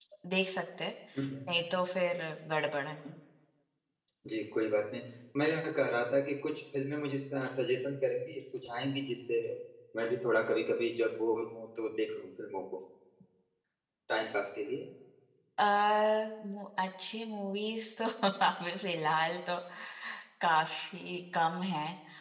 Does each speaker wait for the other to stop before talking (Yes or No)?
Yes